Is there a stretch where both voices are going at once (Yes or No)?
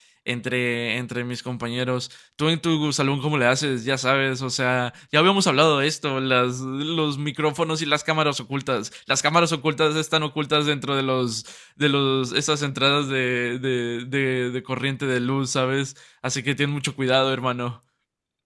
No